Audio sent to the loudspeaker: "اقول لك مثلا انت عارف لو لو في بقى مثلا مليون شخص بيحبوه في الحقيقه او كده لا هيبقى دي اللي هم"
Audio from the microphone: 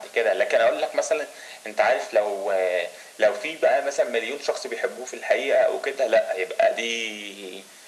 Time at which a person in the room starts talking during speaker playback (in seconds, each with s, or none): none